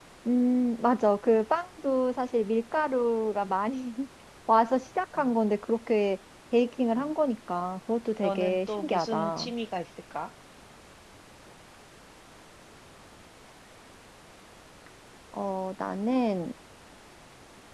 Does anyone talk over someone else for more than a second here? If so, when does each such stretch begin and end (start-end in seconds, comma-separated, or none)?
8.2-9.5